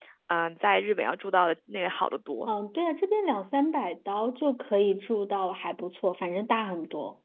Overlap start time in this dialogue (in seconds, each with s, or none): none